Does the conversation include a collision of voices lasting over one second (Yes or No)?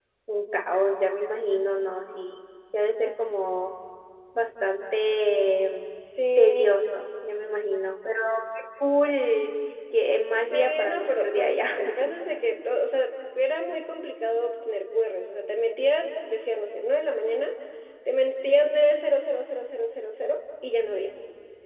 Yes